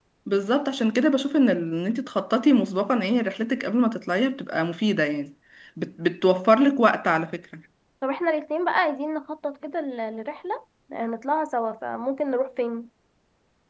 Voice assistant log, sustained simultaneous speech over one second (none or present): none